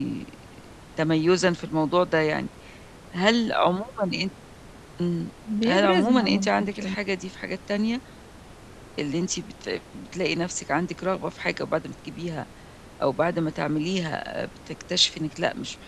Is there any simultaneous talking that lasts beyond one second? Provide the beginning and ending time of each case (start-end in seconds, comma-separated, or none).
5.7-7.0